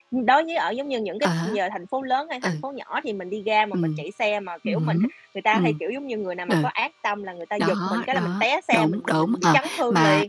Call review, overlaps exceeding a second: present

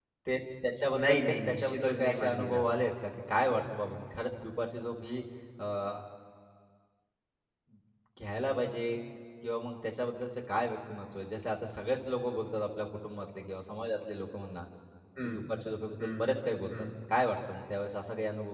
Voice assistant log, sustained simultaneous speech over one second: present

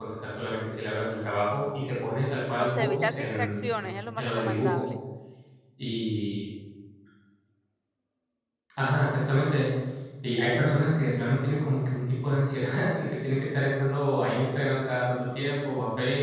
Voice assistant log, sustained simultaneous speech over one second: present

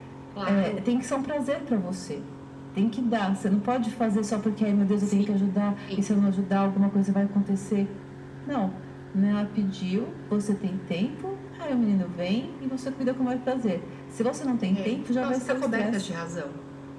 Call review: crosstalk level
present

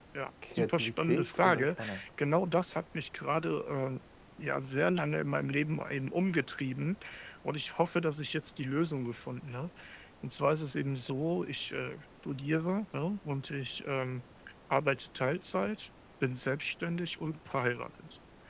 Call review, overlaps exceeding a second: present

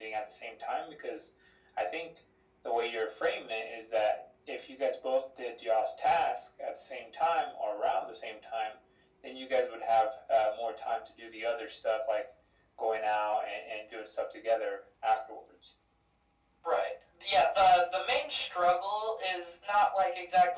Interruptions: none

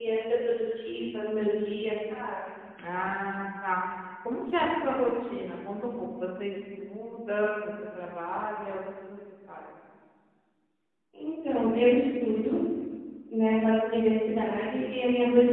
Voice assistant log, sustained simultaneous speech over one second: none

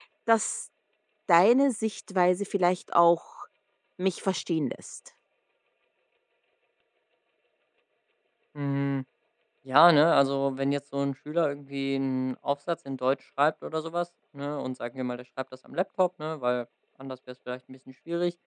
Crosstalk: none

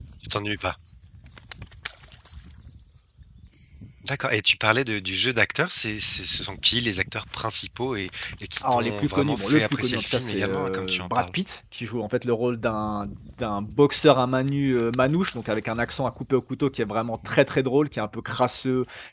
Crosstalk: present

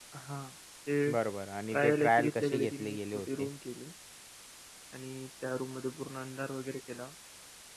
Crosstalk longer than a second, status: present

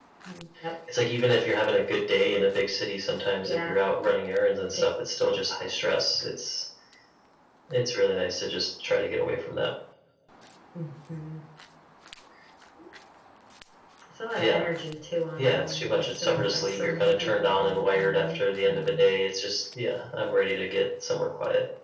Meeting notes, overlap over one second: present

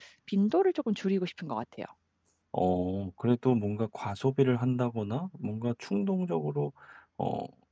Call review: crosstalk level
none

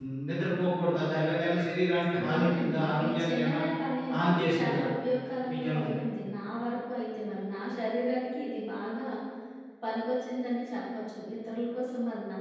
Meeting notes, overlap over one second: present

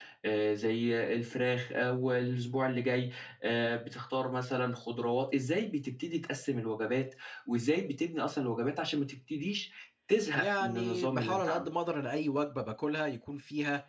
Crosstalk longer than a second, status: present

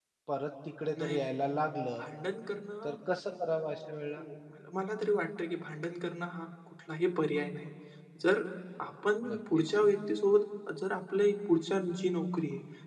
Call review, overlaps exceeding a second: none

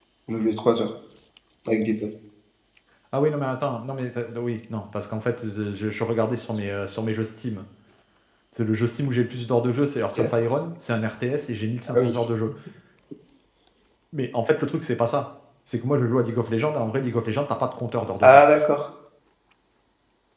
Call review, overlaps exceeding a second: none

